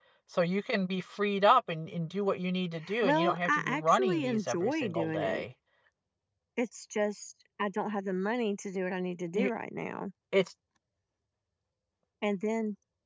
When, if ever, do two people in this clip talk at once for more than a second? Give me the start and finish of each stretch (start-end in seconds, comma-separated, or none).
3.0-5.5